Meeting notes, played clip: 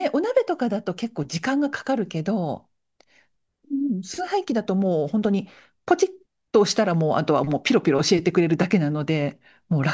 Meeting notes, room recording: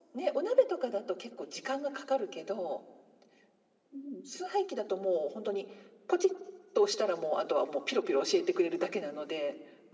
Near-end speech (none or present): none